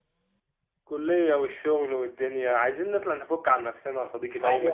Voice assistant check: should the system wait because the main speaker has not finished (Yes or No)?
No